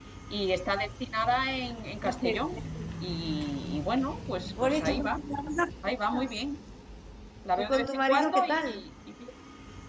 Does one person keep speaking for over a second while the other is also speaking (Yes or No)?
Yes